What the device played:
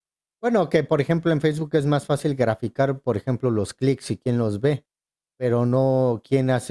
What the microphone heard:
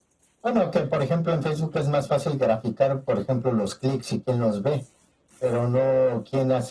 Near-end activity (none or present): none